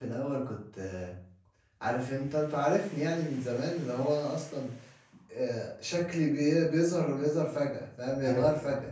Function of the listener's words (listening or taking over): listening